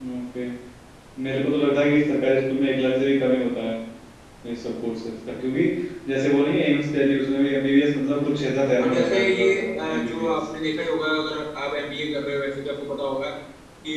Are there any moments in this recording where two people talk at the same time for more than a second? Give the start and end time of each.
8.2-10.3

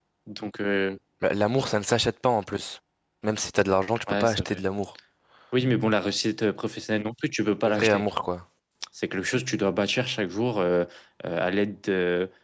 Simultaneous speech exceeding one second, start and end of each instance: none

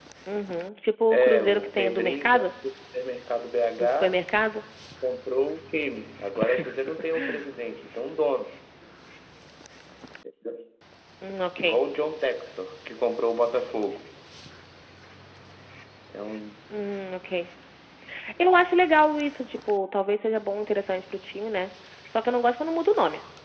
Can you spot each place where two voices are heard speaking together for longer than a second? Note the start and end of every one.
1.1-2.4

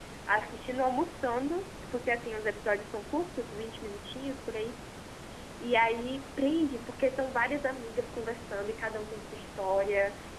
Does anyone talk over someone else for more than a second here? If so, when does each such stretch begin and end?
none

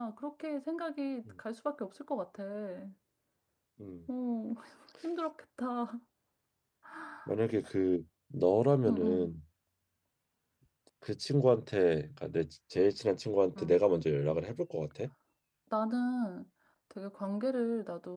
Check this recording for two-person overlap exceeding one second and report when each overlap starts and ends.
none

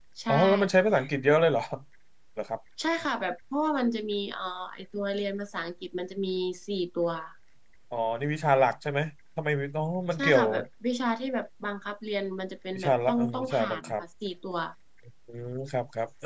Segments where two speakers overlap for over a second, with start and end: 12.8-14.0

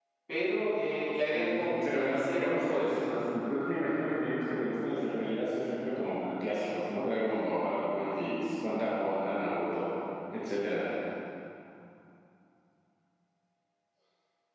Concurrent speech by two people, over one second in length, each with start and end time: 1.3-2.9

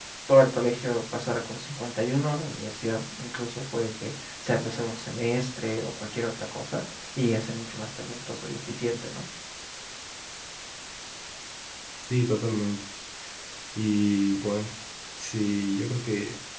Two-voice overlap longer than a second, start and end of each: none

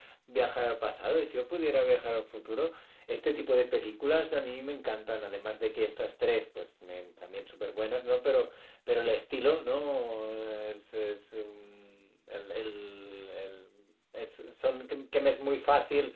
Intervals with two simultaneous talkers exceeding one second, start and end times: none

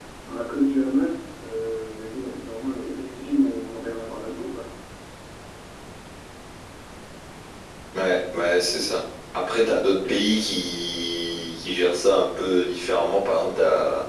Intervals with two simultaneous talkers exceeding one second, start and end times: none

